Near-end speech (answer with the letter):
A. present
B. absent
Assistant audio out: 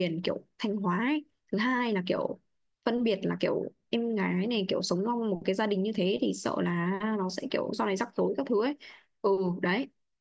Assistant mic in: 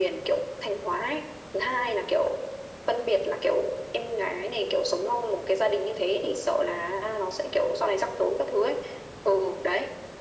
B